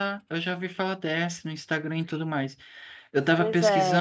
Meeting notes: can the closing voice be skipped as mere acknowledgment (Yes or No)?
Yes